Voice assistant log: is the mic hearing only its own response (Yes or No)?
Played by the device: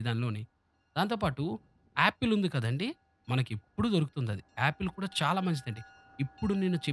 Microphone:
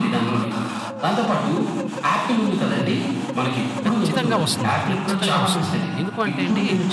No